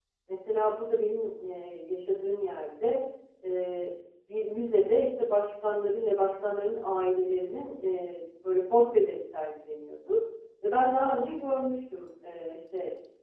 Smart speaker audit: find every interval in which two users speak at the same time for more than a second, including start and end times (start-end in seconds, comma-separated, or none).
none